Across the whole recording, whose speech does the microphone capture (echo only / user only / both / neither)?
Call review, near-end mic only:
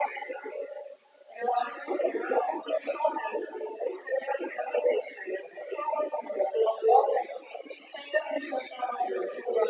echo only